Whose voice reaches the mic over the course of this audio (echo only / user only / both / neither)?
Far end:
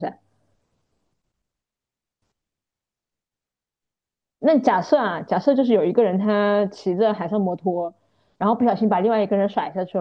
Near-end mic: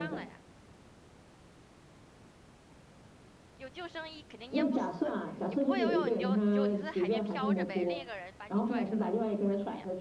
both